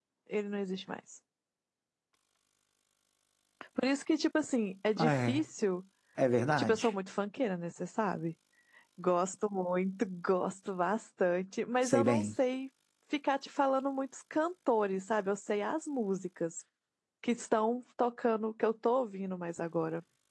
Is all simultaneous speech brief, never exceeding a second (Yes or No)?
Yes